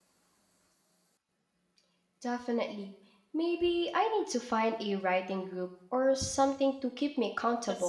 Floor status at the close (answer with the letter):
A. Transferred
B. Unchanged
A